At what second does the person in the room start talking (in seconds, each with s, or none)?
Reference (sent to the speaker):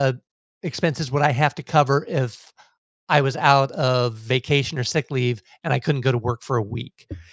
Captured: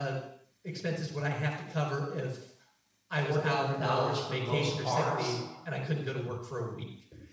3.1 s